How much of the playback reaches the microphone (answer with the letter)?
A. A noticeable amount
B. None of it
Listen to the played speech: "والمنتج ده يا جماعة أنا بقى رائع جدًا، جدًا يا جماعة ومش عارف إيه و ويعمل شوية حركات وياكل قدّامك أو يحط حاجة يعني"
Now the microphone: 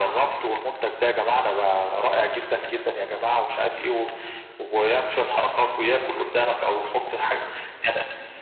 A